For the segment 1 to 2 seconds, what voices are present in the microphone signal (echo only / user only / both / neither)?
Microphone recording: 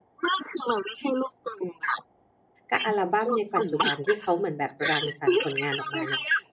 echo only